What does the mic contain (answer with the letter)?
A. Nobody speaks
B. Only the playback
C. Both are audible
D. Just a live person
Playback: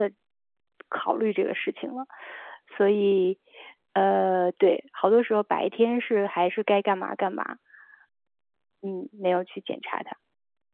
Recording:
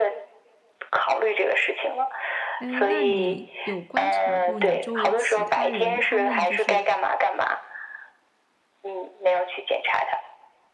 C